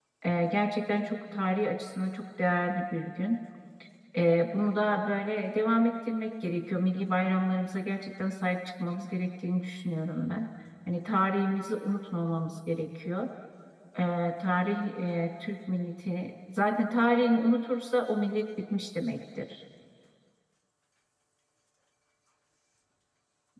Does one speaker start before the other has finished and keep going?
No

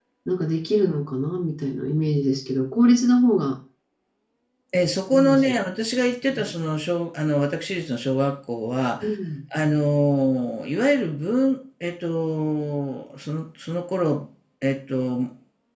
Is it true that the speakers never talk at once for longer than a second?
Yes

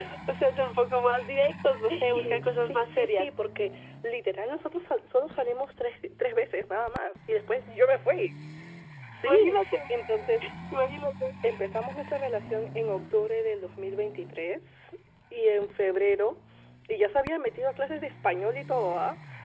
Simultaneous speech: Yes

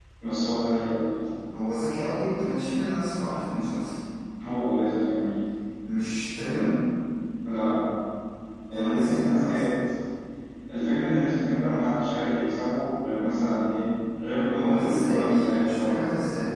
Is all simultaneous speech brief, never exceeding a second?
No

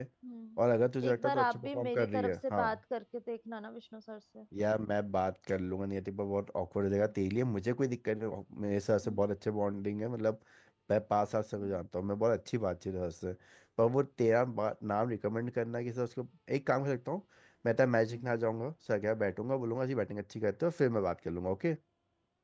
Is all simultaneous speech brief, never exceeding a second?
No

